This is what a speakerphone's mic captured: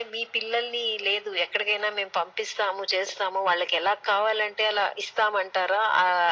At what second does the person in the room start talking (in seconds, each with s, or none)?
none